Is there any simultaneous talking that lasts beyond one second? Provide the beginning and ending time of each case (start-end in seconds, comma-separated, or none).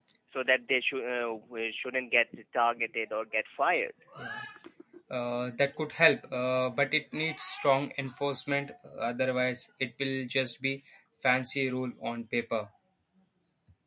none